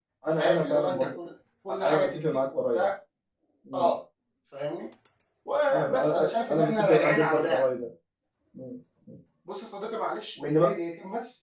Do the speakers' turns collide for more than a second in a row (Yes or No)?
Yes